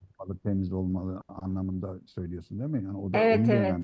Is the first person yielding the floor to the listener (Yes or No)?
Yes